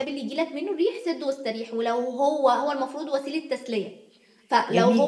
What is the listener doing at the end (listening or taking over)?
taking over